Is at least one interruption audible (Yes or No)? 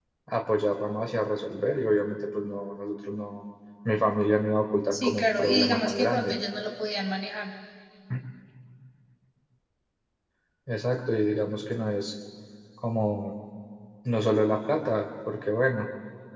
Yes